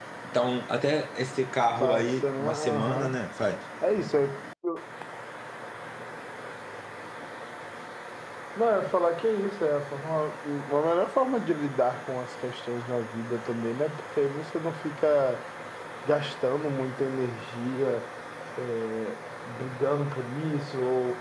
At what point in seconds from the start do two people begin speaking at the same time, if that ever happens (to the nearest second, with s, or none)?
2 s